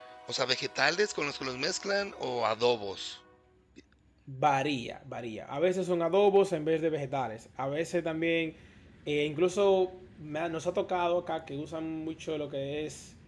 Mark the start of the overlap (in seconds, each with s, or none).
none